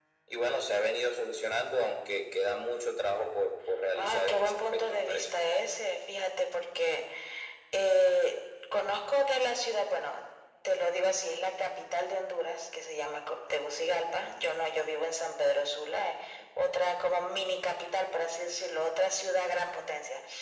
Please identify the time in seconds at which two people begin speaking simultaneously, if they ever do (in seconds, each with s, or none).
4.0 s